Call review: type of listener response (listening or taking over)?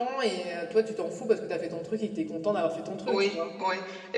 taking over